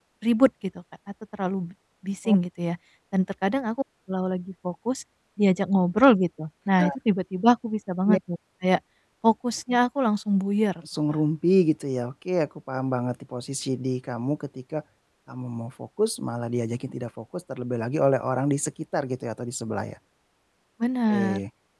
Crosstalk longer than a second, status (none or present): none